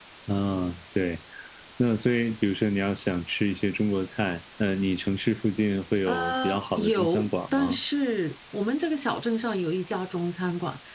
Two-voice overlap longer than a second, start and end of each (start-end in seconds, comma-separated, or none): 6.1-7.8